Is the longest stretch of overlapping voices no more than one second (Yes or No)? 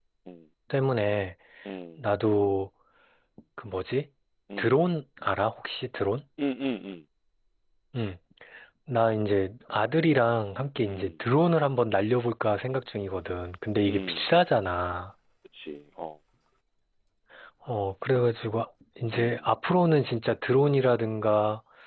Yes